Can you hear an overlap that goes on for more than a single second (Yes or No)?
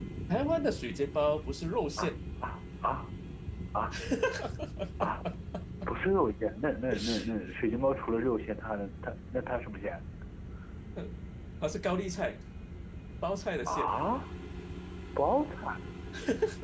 No